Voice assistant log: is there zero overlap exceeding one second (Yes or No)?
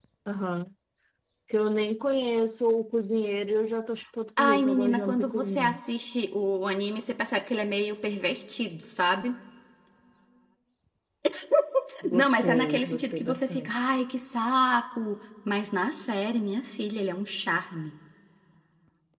No